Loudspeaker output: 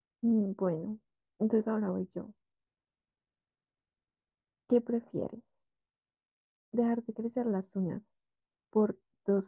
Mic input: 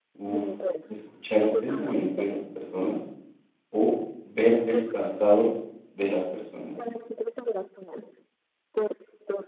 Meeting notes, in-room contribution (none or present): present